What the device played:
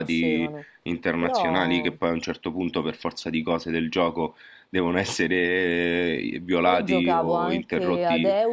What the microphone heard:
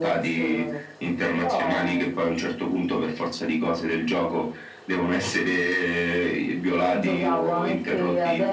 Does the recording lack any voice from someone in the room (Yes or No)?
Yes